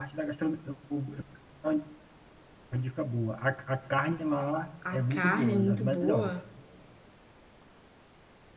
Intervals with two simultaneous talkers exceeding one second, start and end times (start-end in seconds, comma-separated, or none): 4.9-6.3